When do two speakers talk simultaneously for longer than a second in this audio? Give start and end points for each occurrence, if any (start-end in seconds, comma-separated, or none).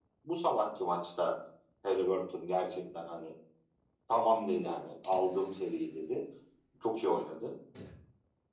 none